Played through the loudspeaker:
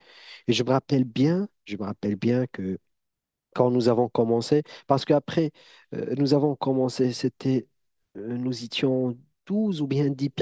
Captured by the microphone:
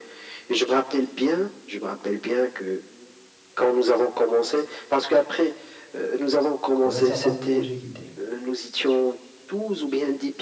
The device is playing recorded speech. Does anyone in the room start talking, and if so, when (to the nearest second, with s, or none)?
7 s